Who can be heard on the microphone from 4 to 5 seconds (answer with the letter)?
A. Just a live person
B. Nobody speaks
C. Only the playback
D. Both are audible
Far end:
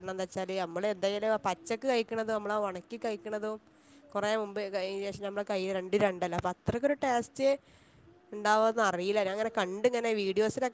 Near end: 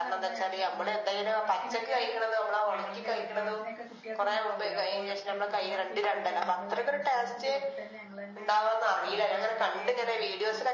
D